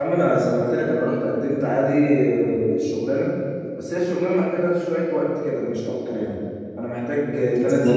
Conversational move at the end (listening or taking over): listening